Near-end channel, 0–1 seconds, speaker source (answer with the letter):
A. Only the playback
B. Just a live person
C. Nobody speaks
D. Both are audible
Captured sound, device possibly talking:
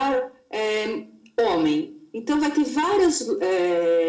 A